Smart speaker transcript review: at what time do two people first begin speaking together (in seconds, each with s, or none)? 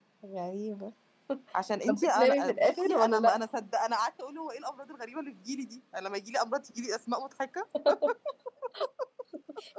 1.9 s